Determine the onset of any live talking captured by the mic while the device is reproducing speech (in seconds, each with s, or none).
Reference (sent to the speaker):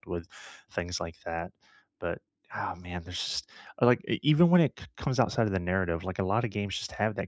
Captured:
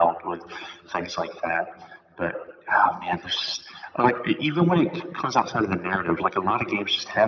none